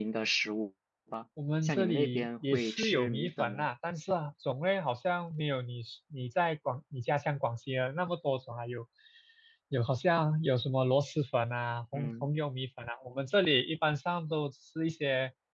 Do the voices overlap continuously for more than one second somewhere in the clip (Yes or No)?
Yes